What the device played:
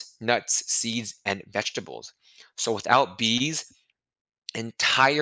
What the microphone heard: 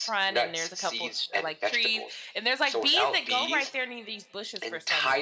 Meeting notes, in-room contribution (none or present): present